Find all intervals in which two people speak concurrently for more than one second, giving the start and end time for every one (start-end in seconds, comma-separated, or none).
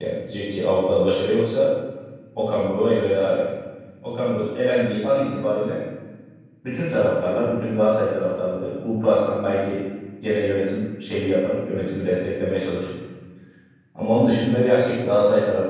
none